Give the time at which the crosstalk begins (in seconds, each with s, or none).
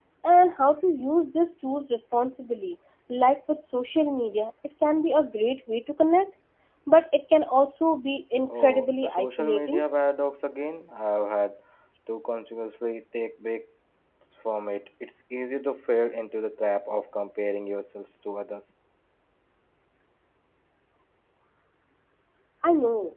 8.5 s